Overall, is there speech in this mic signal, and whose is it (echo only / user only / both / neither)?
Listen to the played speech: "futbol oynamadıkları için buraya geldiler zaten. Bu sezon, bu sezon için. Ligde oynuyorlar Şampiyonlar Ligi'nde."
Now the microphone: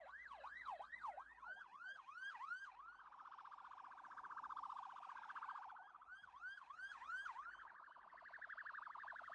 neither